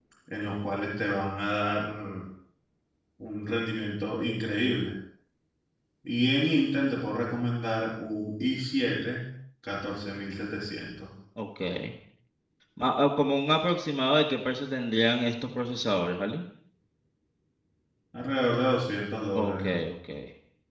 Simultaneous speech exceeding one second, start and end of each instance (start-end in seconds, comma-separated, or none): none